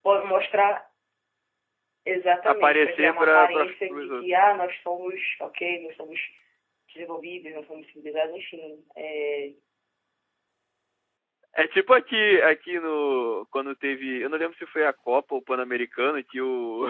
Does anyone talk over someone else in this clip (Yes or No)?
Yes